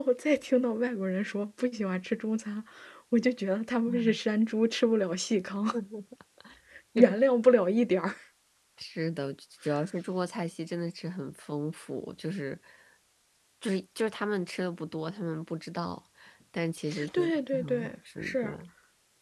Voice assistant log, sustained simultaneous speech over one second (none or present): present